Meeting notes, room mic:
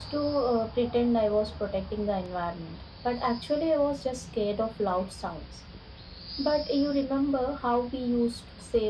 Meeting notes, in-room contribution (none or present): none